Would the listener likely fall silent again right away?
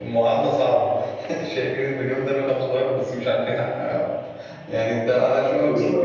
No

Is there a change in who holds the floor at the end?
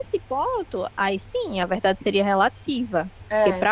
No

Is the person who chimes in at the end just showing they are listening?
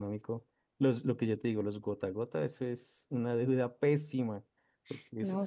No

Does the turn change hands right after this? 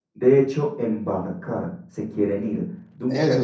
Yes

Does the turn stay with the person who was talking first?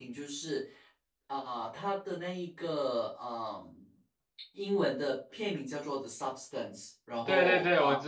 No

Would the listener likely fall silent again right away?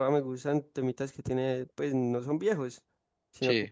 Yes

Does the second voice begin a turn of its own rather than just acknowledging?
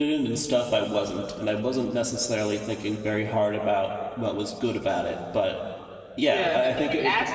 Yes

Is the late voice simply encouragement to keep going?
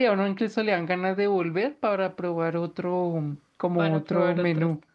No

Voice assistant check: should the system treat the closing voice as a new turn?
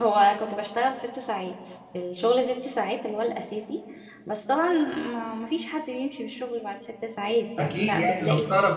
Yes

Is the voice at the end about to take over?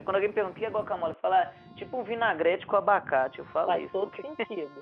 Yes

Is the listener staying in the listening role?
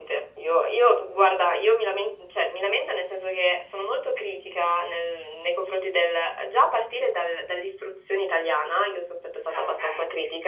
Yes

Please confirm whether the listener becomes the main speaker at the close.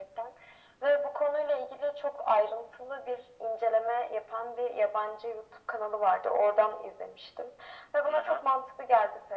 No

